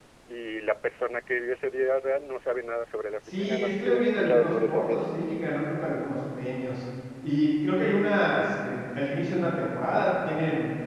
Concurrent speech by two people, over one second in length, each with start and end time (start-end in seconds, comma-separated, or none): 3.3-5.1